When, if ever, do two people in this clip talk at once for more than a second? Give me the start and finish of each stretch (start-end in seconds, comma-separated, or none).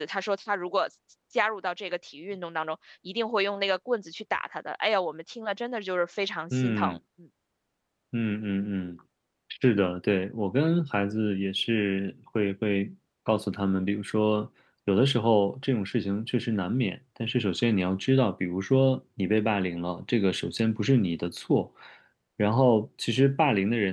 none